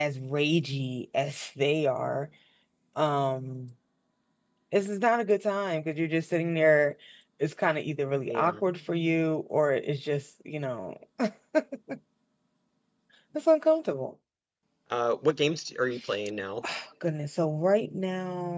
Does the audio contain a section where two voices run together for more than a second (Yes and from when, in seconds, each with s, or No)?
No